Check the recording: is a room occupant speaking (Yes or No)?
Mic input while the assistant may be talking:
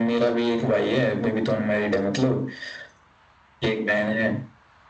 No